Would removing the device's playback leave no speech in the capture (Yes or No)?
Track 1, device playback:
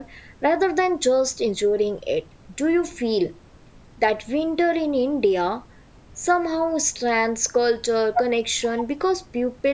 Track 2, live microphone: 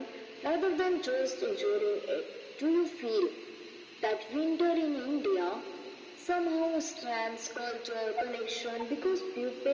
Yes